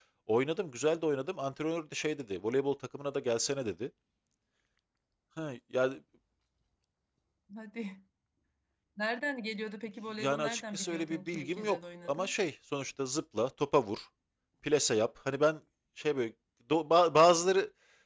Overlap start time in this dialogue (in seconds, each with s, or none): 10.2 s